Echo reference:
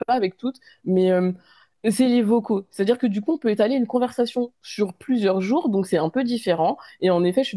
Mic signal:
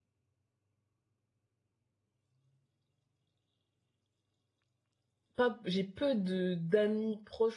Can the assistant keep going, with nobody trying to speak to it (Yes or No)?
No